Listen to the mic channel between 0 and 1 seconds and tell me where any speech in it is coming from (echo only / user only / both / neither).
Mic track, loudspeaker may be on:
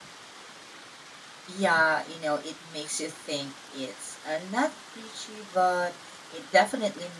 neither